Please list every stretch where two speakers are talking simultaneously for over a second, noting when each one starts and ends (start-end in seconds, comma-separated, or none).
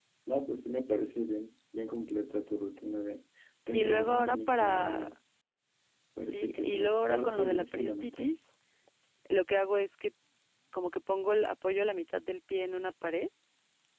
3.7-5.1, 6.3-8.3